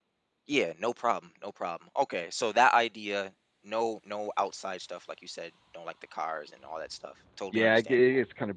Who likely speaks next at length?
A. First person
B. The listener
B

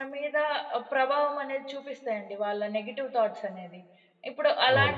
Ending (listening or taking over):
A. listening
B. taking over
A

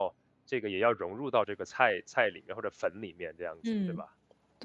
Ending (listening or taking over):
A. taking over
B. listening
A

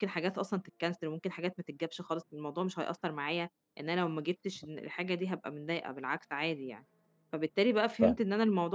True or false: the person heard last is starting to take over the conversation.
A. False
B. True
A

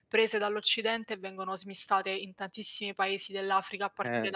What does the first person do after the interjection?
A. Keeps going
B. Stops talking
B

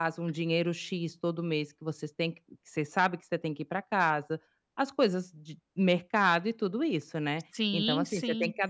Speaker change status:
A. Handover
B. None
B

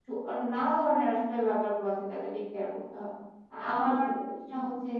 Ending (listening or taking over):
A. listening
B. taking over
A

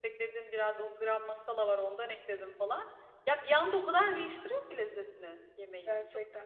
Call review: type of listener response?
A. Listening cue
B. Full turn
B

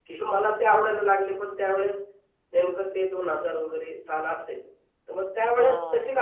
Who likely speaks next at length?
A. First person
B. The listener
A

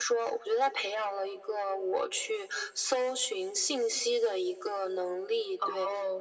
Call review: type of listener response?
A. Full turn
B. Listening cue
B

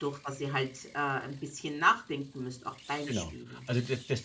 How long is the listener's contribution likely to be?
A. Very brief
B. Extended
B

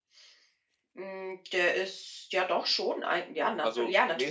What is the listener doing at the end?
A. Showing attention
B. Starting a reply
B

